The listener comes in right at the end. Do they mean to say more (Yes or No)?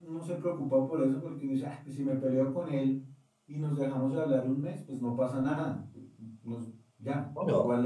No